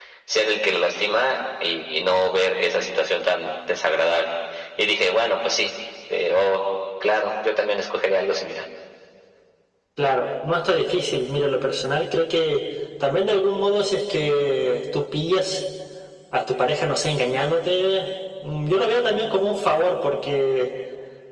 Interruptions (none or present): none